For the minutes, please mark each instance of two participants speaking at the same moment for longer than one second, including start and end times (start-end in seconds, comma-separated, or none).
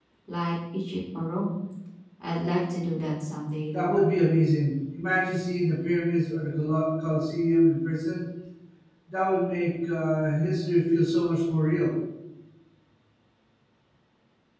none